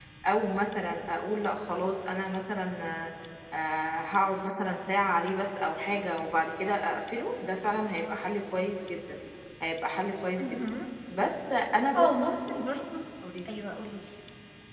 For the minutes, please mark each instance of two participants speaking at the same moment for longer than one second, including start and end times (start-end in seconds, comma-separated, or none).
none